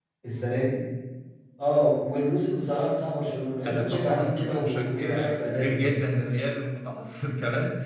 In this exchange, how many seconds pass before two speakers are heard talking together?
4 s

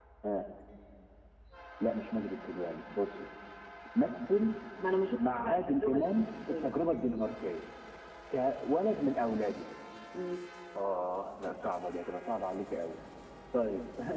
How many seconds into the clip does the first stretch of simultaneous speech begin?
5 s

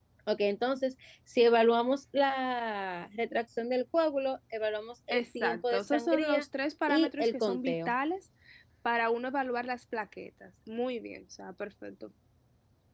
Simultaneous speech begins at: 5 s

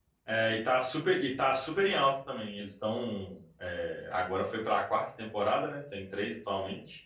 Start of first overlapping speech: none

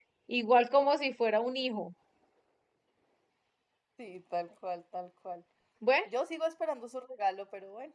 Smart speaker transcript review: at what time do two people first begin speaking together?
none

